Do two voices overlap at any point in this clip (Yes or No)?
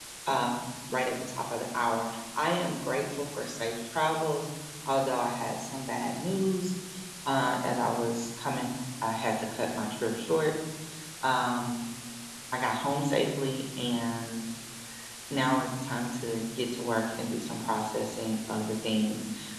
No